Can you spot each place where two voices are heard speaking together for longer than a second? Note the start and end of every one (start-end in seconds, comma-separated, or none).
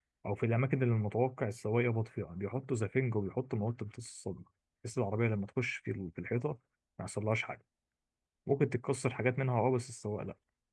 none